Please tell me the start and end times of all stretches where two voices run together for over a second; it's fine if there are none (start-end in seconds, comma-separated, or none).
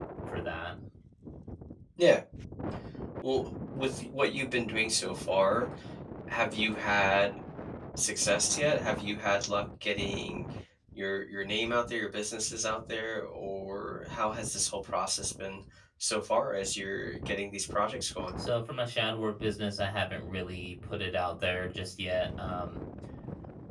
none